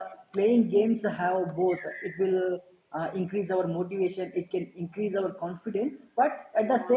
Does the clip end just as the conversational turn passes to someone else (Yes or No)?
No